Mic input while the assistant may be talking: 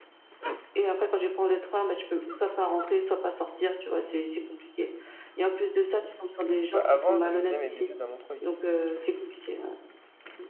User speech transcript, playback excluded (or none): Bah avant j je faisais mes études à Montreuil